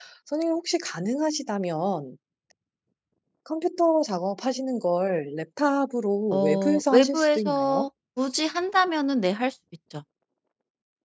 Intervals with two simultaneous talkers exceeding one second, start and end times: 6.3-7.9

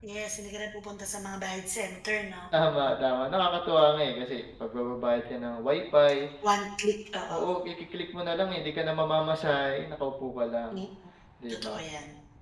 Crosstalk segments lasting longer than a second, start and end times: none

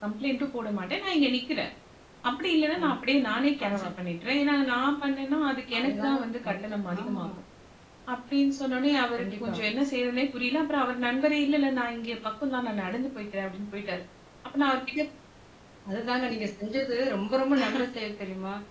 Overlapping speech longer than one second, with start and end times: 5.8-7.2

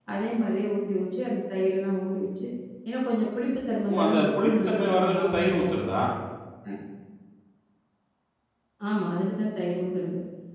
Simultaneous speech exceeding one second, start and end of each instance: 3.9-5.8

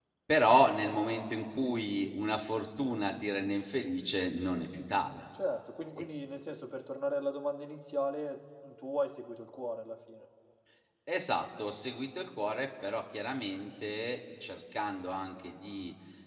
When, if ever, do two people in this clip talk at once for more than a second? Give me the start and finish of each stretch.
none

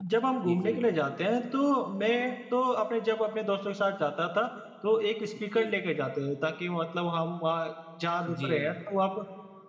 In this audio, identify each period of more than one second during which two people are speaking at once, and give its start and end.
none

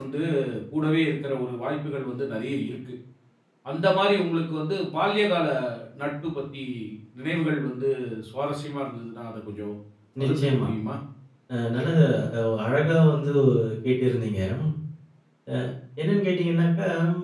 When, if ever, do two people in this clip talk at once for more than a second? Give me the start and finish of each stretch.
none

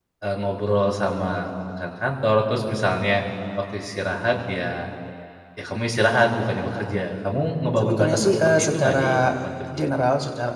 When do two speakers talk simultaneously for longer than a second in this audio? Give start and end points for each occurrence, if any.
7.8-9.2

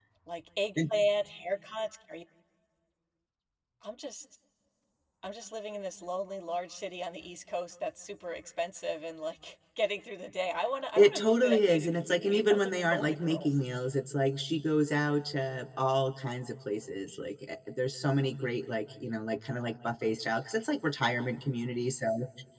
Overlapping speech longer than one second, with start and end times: 11.0-13.5

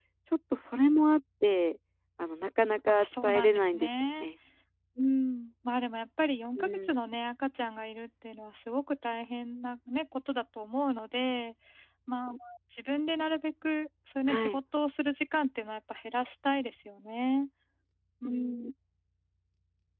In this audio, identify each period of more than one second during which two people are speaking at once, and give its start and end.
2.9-4.3

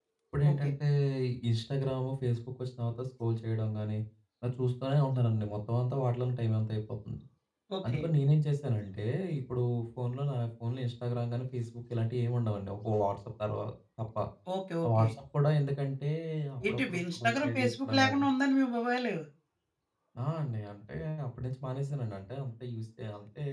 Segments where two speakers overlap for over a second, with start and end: 16.7-18.2

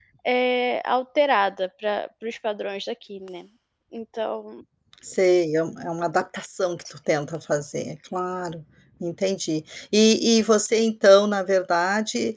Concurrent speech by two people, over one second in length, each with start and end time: none

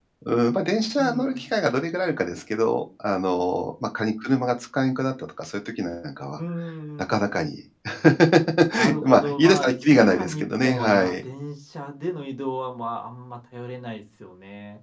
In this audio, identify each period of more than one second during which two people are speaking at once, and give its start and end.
9.0-11.2

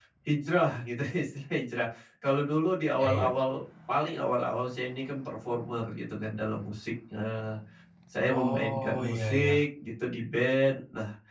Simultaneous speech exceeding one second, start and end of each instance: 8.3-9.6

